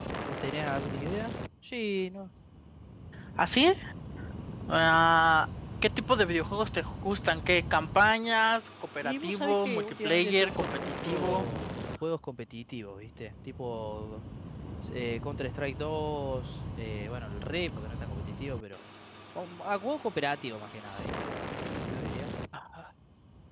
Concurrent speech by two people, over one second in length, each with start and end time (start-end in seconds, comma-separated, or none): 9.0-11.4